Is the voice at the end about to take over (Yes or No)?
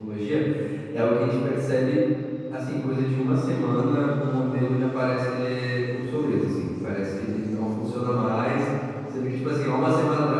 No